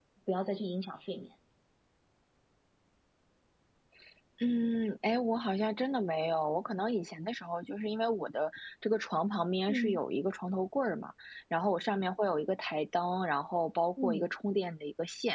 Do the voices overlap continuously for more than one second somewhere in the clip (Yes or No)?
No